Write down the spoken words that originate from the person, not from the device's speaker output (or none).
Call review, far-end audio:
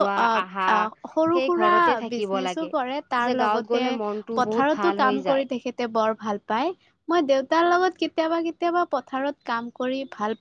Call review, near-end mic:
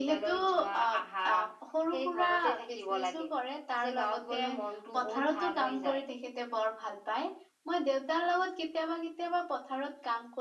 none